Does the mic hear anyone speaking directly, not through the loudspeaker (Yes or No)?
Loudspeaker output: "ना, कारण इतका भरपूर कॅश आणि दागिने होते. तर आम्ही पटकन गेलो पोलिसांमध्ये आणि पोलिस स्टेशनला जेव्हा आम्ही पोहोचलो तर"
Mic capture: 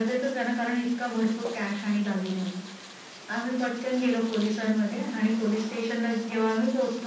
No